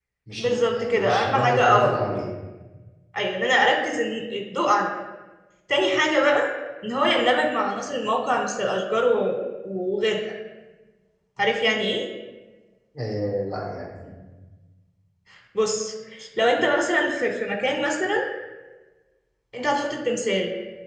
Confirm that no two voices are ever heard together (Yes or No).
No